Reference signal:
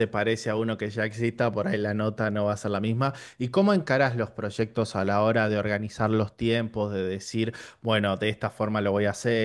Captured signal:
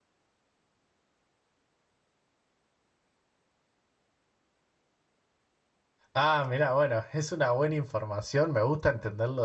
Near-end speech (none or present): present